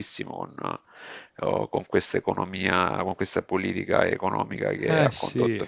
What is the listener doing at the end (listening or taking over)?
listening